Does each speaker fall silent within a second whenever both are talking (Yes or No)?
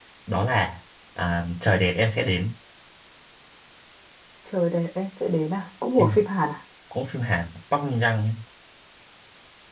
Yes